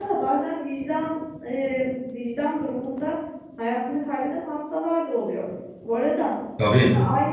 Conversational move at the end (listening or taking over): listening